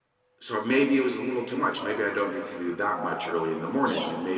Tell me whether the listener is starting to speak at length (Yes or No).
No